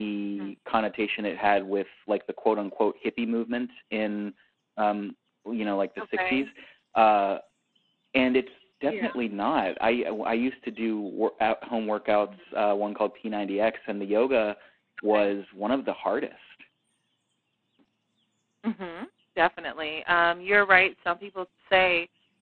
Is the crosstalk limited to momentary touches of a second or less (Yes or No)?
Yes